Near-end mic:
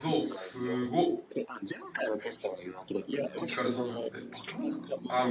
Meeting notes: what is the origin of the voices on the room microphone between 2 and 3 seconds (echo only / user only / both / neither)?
echo only